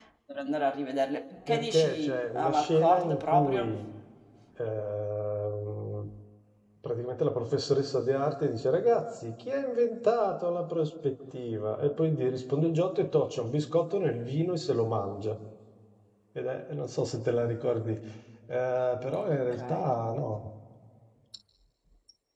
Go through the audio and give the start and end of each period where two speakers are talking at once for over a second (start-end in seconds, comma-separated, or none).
1.5-3.8